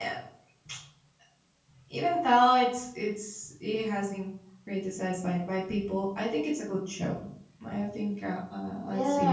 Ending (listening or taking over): taking over